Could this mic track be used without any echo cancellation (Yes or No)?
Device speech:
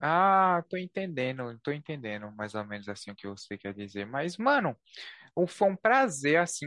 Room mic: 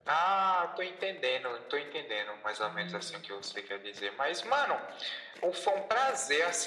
No